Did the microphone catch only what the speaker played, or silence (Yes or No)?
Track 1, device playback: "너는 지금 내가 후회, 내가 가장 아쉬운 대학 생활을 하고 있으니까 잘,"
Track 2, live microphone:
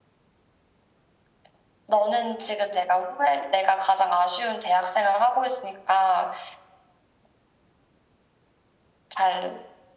Yes